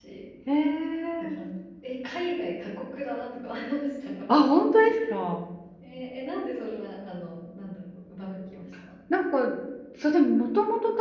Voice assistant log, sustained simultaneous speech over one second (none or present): none